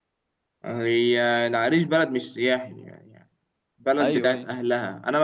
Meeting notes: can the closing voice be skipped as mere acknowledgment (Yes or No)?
Yes